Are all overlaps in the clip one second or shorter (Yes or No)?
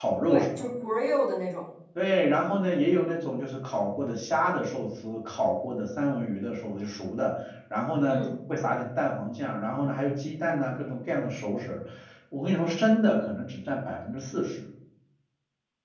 Yes